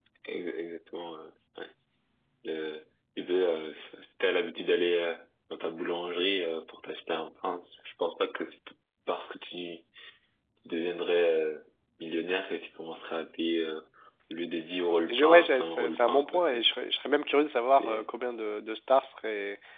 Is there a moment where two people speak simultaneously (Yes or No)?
Yes